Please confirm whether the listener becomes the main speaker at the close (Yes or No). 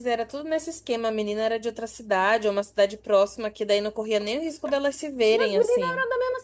Yes